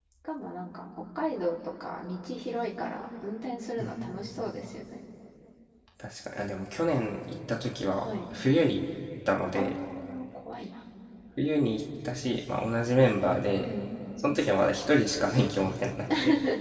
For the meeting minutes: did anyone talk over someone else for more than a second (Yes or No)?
No